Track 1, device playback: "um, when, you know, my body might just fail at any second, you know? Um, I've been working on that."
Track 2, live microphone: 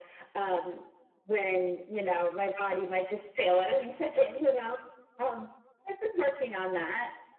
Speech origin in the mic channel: echo only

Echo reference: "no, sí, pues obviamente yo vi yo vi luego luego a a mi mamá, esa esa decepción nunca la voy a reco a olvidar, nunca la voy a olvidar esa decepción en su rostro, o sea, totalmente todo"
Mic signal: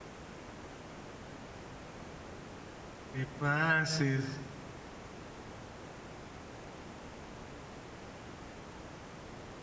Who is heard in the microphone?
user only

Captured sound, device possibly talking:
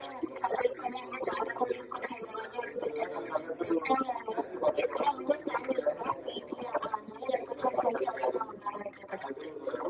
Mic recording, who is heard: both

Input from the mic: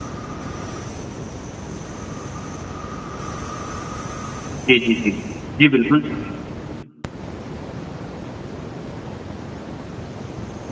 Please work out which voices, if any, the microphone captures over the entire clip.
user only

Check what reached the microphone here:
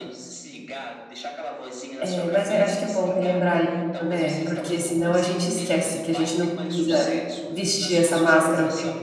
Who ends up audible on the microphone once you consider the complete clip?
both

